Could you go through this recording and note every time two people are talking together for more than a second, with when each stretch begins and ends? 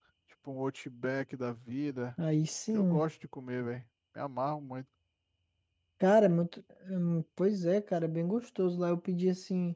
none

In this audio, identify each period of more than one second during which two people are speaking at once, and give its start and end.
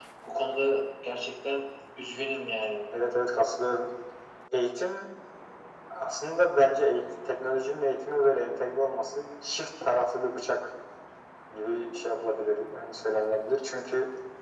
none

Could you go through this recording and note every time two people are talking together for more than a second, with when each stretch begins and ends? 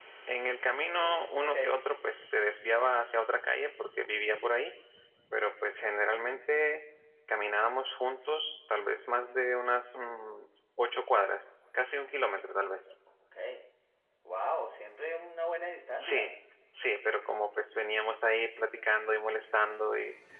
none

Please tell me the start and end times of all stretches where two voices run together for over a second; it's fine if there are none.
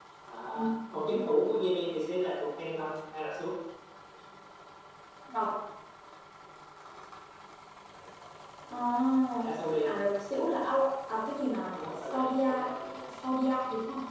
11.7-12.9

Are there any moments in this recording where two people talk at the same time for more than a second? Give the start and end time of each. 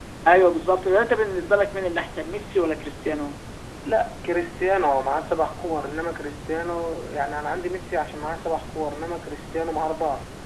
none

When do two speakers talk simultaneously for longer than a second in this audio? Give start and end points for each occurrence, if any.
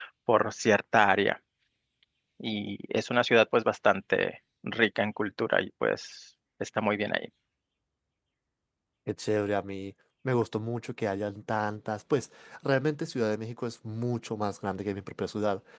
none

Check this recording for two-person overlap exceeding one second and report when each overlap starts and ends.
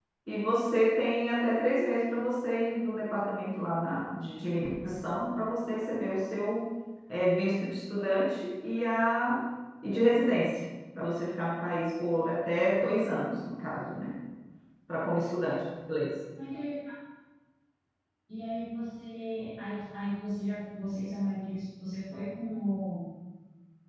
none

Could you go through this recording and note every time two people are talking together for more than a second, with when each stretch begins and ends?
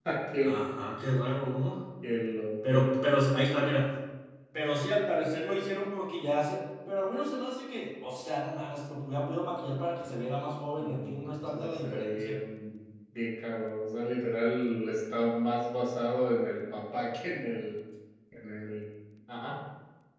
10.8-12.4

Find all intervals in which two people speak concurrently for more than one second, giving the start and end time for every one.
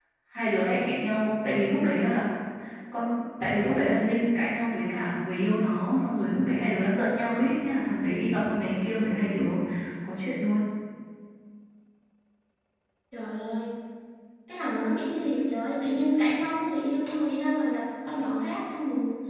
none

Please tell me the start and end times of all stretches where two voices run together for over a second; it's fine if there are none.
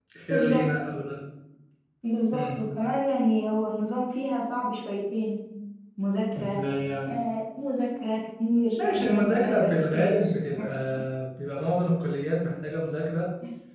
8.8-10.3

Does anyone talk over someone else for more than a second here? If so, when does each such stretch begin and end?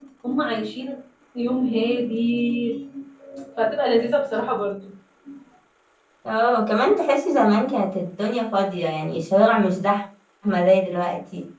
none

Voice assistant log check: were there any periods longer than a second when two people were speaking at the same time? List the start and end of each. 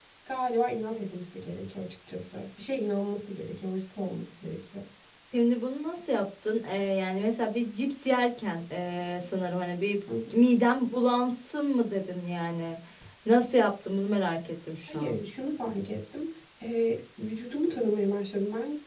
none

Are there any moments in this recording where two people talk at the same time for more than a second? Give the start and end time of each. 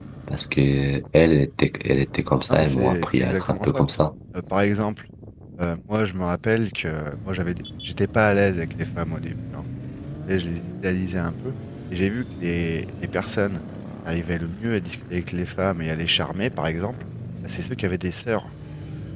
2.5-3.8

